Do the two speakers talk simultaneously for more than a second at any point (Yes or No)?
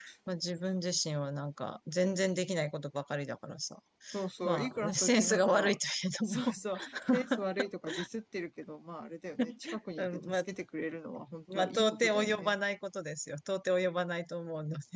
Yes